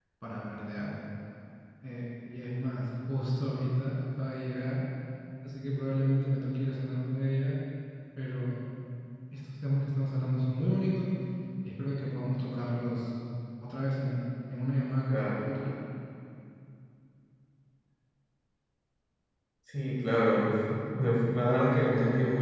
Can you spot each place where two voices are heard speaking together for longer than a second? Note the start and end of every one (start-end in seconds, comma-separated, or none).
none